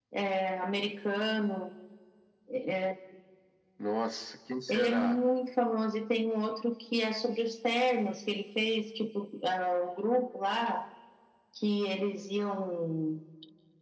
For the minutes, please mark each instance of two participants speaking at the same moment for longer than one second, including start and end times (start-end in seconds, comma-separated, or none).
none